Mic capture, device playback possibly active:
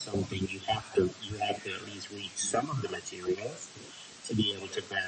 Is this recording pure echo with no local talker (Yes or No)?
Yes